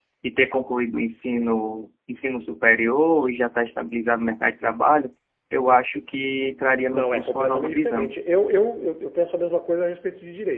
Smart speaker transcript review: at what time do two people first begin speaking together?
6.9 s

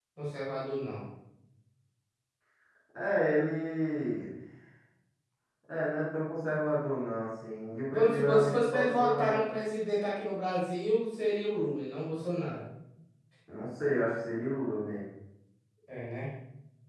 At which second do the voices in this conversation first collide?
7.9 s

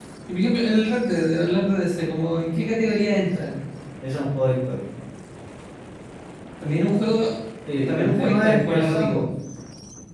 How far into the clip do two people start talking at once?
7.9 s

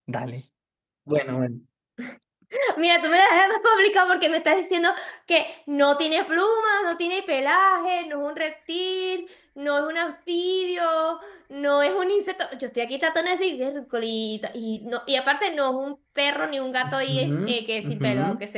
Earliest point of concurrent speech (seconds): 16.8 s

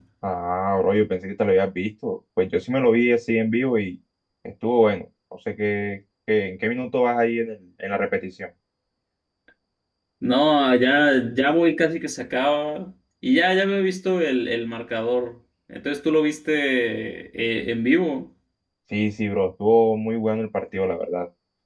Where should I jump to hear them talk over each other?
none

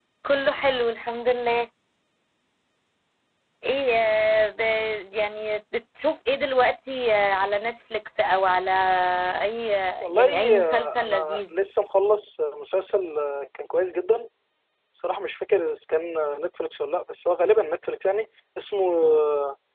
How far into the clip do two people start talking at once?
10.0 s

